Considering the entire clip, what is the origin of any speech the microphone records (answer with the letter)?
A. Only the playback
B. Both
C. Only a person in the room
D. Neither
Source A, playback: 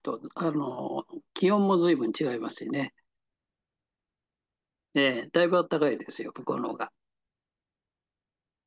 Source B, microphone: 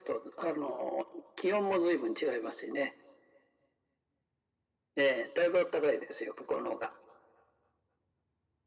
A